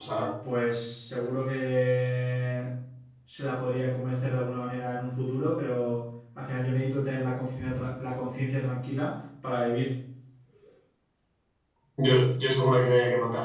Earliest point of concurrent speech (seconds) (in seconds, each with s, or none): none